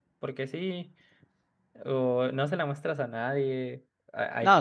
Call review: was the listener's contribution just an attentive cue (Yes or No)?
No